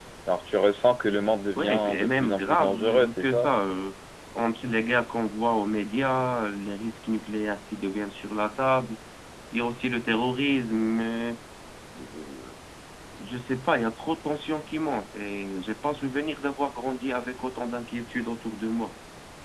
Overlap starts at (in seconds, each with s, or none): 1.6 s